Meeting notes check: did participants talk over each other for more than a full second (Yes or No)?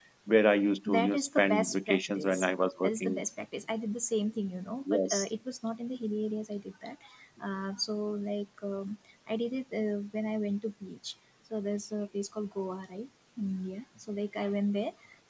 Yes